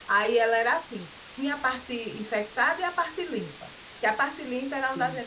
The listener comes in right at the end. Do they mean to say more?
No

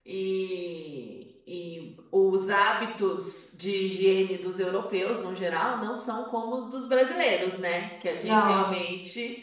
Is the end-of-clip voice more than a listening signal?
No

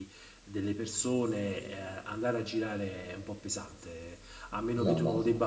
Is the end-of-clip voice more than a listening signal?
No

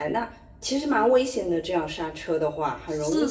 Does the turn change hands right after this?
Yes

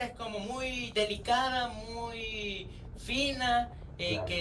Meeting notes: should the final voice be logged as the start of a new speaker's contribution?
No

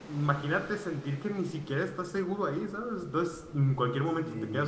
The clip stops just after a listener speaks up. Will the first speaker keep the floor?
Yes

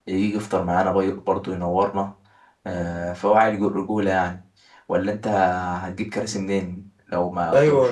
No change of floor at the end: No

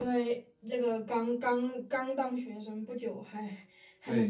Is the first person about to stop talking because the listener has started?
Yes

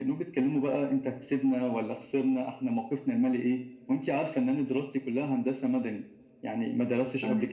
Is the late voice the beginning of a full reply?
No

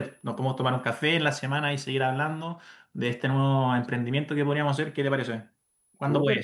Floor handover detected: Yes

